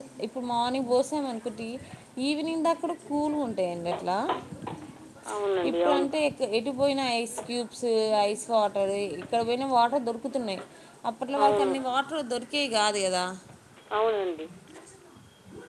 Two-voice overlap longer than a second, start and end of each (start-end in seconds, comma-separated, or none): none